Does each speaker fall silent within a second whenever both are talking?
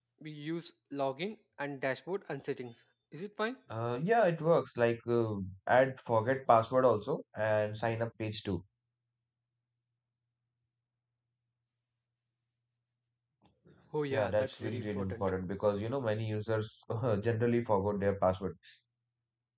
No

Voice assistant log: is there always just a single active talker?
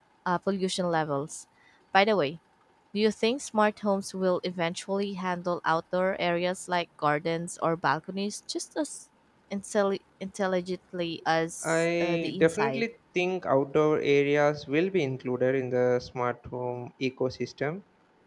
No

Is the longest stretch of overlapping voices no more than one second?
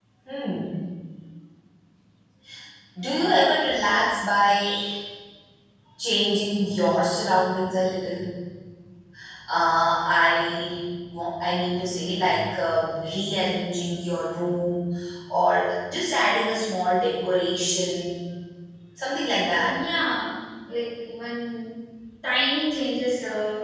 Yes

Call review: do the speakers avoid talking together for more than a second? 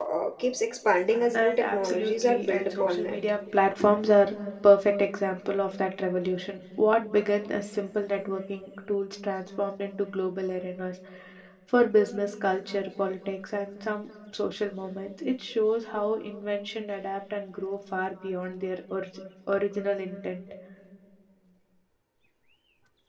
No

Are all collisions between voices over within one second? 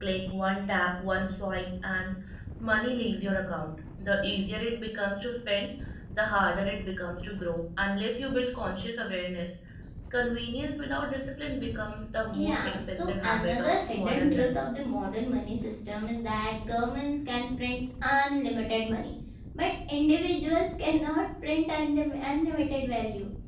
No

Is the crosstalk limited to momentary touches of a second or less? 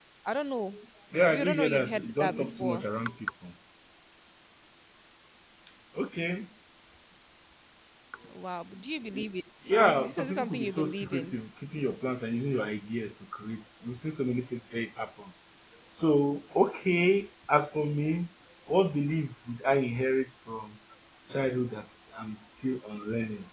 No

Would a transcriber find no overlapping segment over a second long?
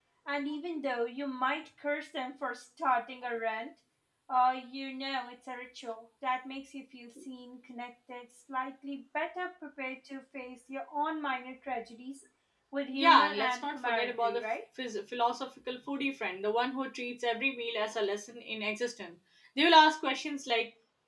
No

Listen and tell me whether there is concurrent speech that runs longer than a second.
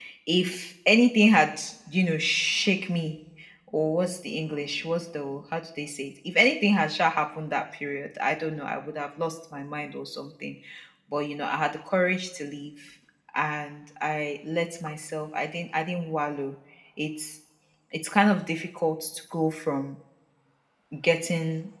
No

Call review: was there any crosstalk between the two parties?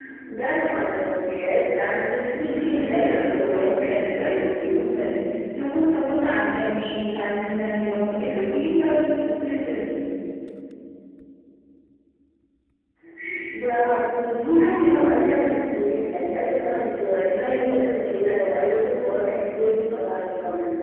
Yes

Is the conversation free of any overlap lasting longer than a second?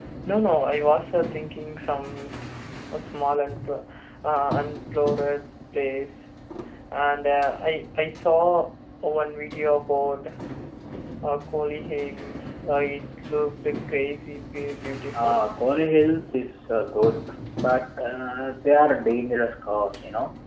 Yes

